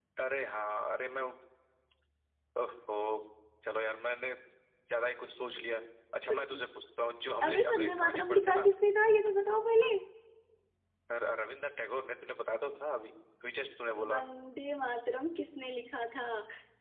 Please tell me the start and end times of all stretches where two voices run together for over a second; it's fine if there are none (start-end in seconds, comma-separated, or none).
7.4-8.6